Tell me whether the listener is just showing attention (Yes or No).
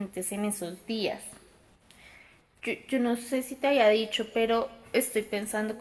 Yes